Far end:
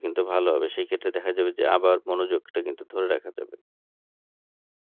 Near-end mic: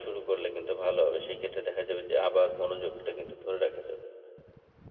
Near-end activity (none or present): none